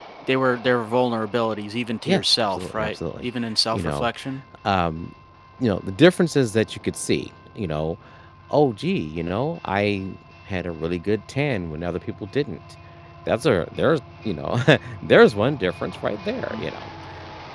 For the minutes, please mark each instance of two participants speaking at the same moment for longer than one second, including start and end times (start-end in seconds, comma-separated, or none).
2.0-3.3